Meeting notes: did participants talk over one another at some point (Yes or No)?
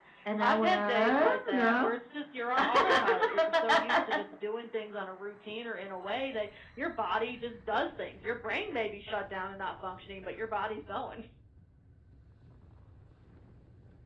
Yes